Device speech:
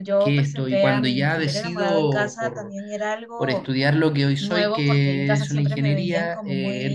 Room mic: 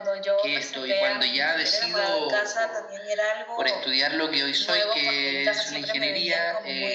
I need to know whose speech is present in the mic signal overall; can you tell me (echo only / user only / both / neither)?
echo only